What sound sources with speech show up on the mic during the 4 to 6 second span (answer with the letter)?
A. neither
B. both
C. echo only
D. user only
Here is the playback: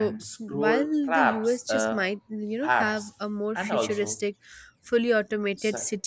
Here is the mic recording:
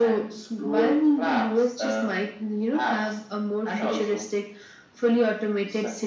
C